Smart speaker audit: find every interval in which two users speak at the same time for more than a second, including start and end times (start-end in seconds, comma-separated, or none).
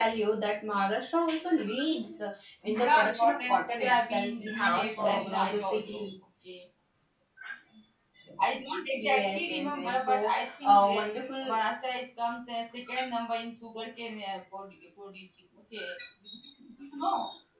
2.6-6.0, 9.0-11.0